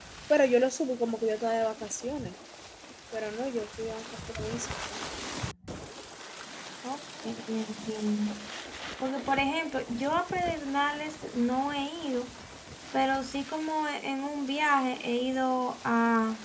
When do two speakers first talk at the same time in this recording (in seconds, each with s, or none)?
none